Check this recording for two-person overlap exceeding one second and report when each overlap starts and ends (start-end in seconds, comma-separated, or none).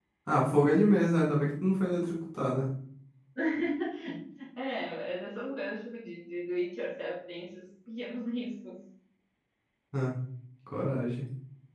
none